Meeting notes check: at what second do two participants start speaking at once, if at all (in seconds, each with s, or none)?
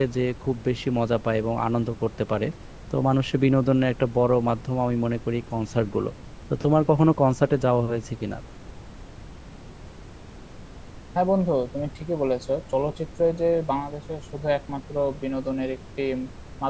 none